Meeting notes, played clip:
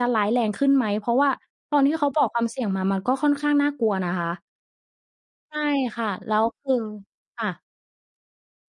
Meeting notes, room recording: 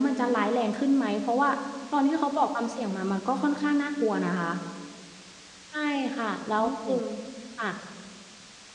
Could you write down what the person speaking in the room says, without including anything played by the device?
โอ้โฮ

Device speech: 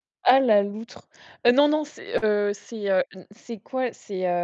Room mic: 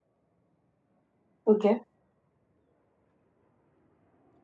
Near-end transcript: OK.

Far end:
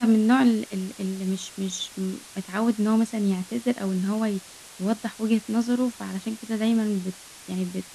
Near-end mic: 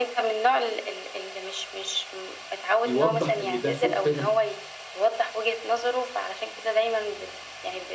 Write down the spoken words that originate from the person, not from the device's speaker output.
يوضّح إن ده سوء فهْم.

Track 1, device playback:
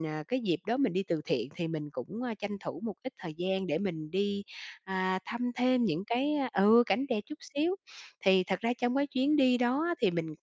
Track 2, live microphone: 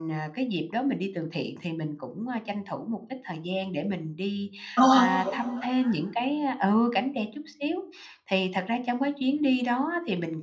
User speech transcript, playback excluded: Ồ, thế thì tốt quá.

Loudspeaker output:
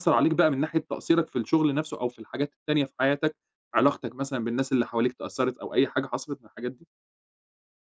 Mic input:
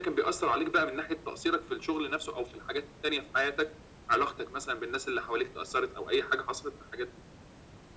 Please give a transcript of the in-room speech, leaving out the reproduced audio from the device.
none

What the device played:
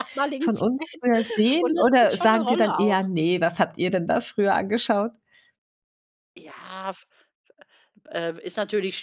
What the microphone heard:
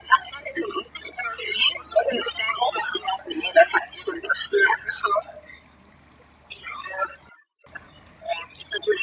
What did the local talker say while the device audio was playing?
none

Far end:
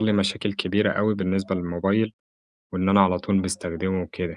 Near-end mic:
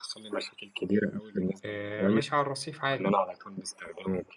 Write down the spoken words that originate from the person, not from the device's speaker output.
آآ، ماشي على الرصيف عادي،

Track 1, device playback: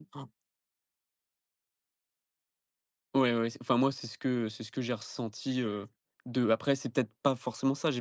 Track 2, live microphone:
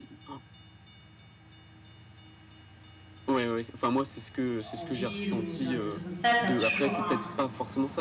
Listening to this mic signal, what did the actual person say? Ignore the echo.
en ville ou dans des trucs comme ça, tu as toujours un

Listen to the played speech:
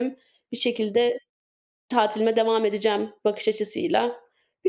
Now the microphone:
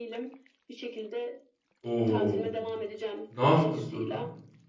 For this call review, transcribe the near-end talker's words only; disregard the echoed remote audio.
O! Ne yaptın sonra?

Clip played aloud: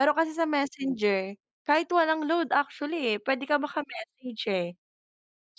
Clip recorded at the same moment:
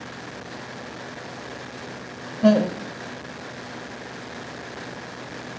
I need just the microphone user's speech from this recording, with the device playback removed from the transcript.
Mm.

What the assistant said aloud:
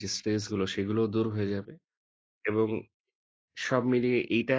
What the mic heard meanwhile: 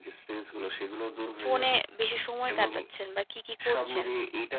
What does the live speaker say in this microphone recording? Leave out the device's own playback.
ফোনে বেশি সময় কাটাচ্ছেন বা কি, কি, করছেন

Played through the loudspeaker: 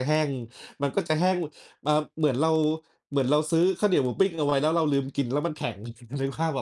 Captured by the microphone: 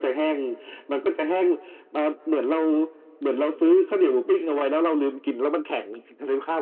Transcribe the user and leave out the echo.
none

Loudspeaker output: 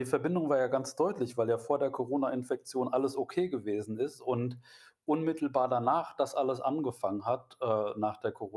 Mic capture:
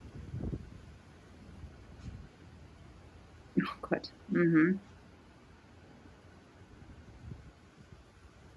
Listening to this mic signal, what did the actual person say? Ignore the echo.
Ach Gott, mhm.

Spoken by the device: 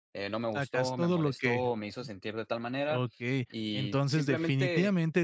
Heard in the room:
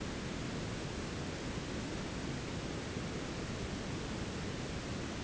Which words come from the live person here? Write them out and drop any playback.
none

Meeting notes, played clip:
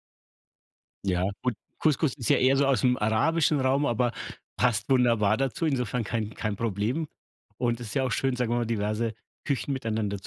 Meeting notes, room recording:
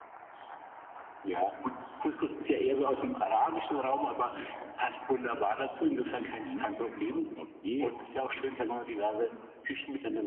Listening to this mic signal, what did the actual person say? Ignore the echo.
Mhm. Okay.

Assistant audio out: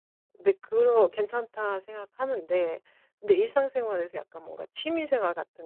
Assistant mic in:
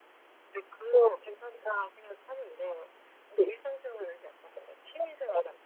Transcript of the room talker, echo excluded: none

